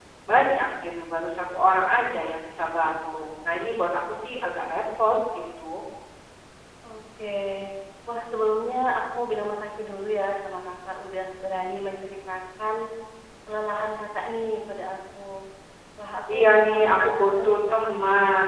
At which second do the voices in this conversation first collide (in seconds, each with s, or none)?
16.3 s